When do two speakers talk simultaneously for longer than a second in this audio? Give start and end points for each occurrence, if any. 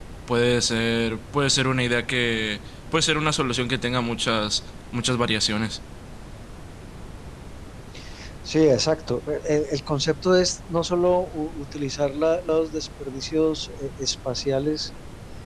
none

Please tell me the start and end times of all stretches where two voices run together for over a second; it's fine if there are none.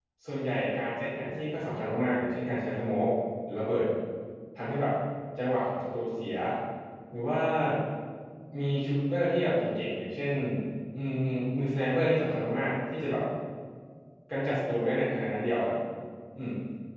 none

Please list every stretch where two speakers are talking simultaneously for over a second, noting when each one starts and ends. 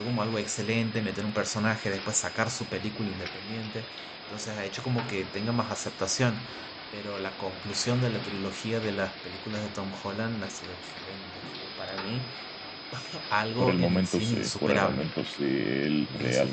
13.6-15.1

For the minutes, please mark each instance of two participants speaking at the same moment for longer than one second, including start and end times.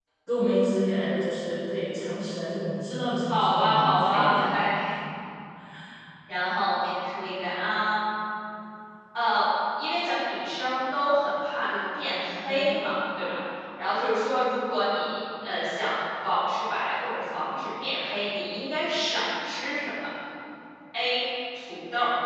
3.3-4.5

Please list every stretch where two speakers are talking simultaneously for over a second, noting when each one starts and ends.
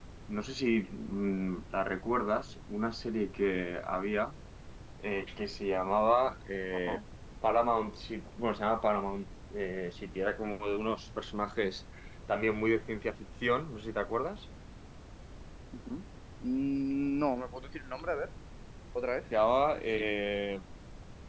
none

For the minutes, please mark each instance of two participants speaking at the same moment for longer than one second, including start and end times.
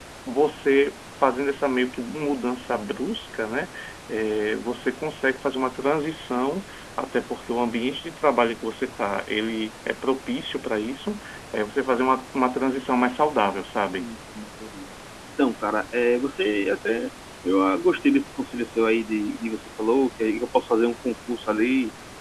none

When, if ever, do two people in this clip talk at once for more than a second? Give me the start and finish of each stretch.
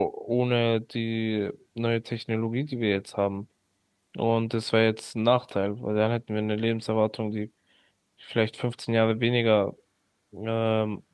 none

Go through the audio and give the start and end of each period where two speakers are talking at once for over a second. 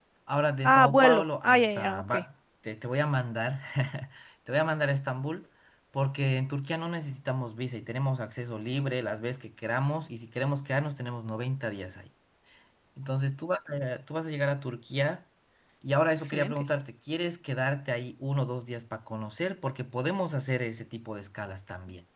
0.6-2.1

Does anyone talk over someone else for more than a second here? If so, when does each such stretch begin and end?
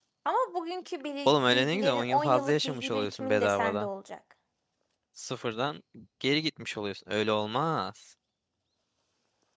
1.2-3.9

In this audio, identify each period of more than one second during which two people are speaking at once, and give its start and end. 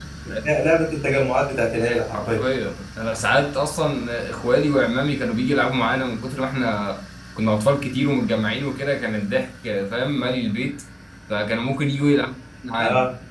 none

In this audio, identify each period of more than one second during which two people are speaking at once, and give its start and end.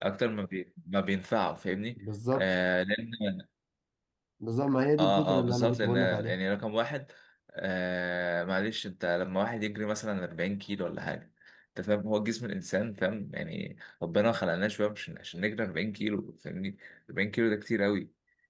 5.0-6.4

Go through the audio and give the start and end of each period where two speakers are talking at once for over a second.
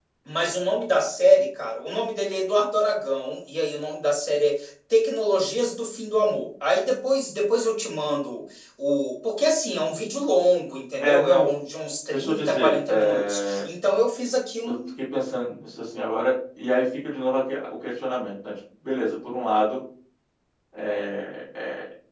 12.1-13.7

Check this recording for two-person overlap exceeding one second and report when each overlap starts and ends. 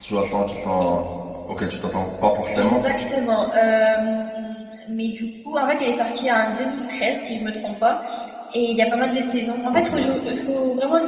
none

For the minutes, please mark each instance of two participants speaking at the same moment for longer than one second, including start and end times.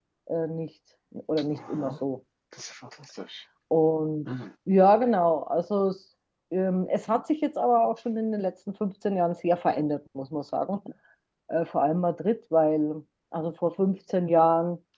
none

